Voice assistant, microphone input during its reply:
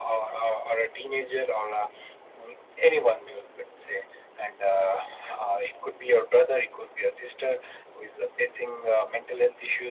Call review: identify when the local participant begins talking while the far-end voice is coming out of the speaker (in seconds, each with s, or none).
none